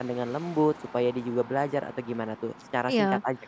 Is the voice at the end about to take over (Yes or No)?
Yes